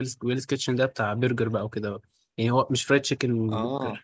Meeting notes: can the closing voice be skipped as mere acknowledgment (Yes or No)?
Yes